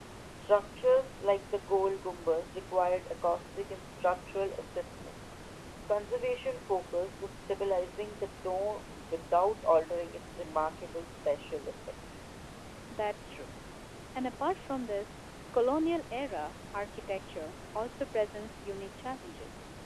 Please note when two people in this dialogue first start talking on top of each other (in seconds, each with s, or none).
none